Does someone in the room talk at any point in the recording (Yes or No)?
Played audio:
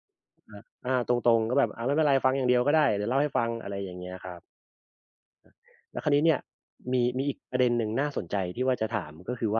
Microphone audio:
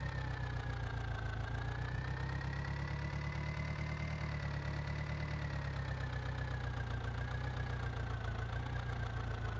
No